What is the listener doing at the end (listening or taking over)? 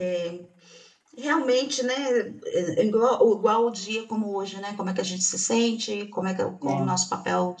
listening